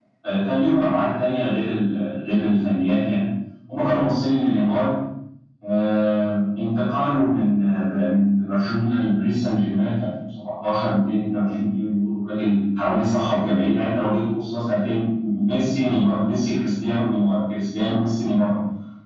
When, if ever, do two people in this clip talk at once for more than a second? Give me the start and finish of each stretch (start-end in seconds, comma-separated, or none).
none